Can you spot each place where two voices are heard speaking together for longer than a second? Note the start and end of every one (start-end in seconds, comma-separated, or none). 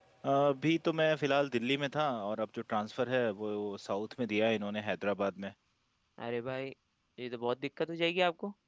none